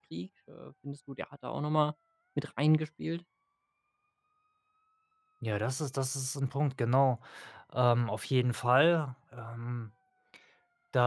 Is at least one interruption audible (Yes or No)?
No